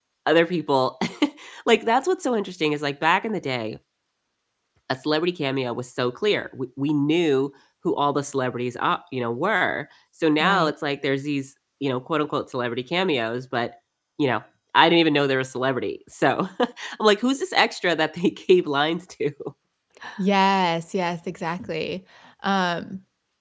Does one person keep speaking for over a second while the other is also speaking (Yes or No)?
No